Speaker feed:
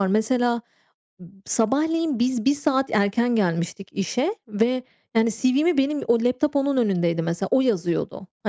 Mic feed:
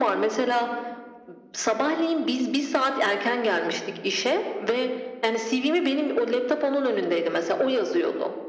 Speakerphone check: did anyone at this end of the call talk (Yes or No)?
No